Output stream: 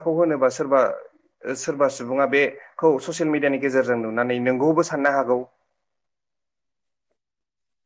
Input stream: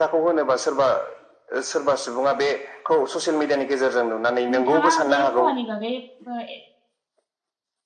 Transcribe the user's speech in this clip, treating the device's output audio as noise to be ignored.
नोंथाङा बे खहानि बागै ए

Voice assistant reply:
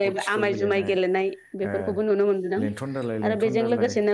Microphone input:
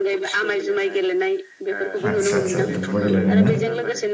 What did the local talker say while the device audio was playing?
आदसा आदसा दुब्बा गेलेनाय ना

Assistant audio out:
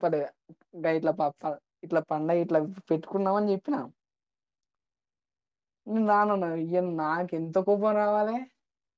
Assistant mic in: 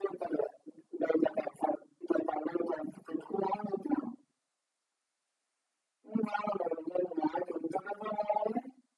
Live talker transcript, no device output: none

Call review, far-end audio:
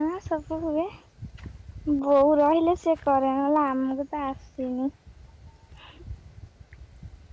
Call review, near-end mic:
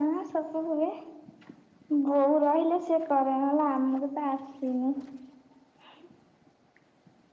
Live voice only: none

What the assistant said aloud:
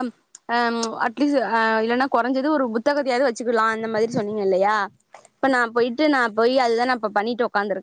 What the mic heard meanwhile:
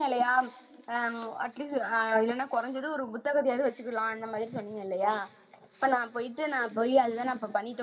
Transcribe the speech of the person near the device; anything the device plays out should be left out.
none

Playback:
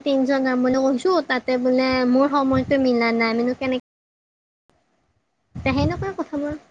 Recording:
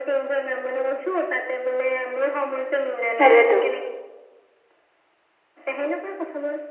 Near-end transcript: সেইটোৱেতো

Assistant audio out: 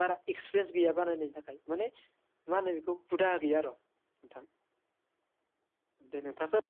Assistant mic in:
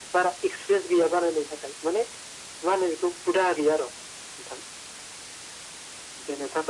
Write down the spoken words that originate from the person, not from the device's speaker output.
none

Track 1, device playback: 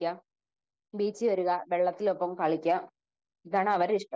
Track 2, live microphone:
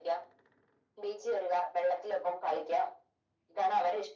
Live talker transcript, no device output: none

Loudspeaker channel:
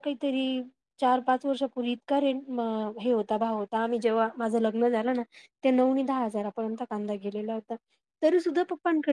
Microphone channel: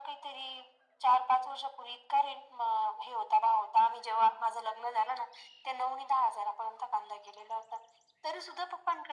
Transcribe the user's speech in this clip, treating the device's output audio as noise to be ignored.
none

